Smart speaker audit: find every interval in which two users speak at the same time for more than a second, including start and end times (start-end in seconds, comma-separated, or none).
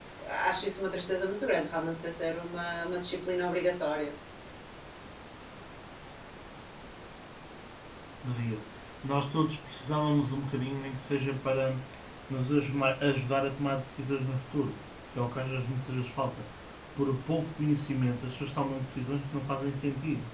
none